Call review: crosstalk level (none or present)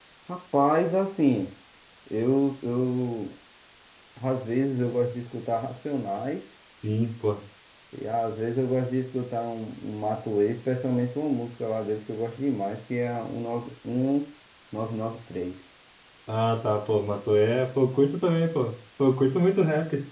none